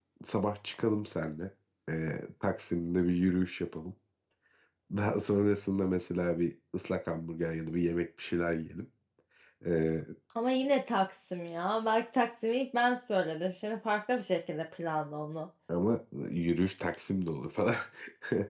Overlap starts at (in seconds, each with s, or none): none